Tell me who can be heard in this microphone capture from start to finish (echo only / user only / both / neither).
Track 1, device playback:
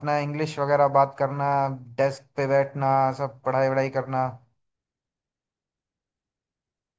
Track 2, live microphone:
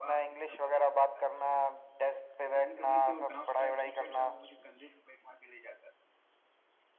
both